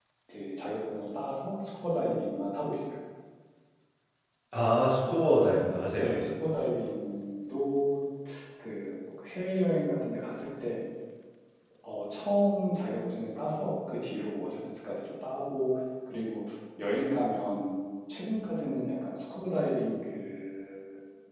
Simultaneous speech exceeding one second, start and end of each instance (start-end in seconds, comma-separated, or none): none